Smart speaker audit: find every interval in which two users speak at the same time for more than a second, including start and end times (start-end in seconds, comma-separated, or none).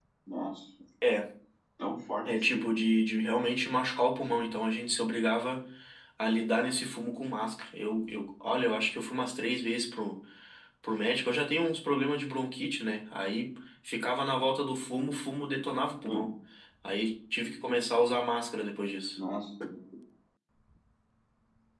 none